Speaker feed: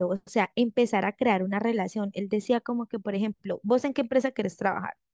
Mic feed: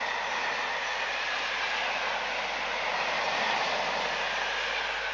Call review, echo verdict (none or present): none